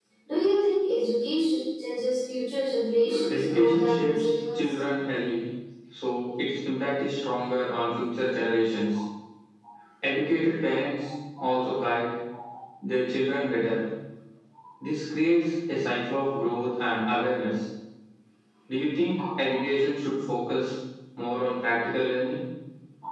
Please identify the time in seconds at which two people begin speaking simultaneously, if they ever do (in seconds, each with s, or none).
3.3 s